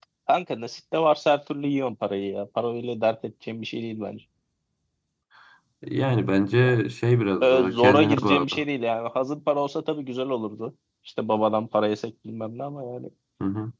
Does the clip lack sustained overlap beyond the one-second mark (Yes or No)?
No